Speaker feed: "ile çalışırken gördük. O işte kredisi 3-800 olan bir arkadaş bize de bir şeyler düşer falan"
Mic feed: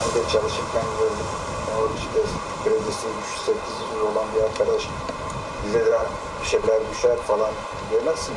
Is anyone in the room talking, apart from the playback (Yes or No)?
No